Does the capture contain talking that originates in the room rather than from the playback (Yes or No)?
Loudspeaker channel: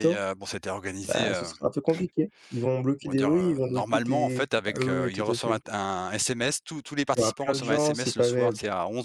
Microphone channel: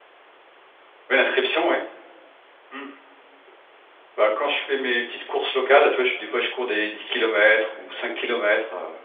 Yes